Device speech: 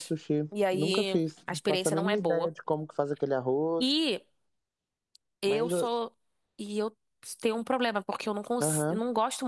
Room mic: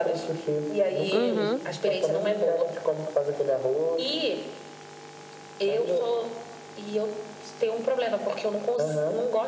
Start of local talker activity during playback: 1.1 s

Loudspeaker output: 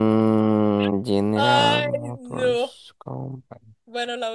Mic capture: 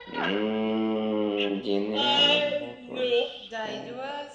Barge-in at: 3.4 s

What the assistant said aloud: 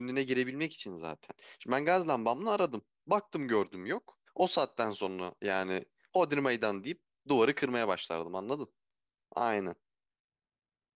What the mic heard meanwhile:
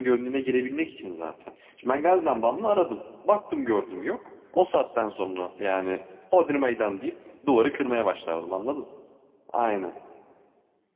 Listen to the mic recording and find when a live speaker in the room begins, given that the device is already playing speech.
none

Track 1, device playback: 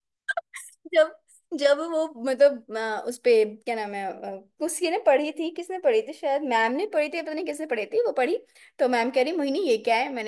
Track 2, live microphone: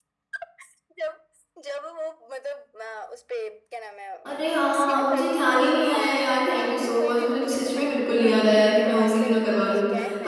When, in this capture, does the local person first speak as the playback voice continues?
4.2 s

